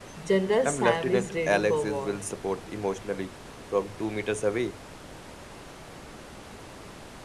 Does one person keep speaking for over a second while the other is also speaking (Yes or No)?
Yes